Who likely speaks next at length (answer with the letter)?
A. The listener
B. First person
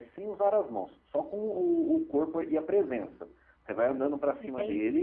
B